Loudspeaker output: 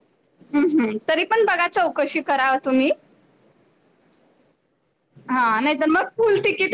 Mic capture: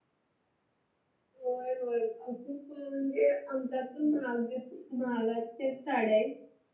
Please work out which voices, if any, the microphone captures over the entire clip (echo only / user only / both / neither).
user only